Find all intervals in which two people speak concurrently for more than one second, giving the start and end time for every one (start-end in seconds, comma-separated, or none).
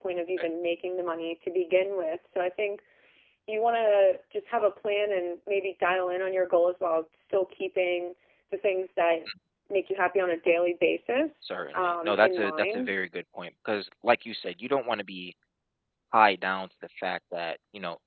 11.4-12.9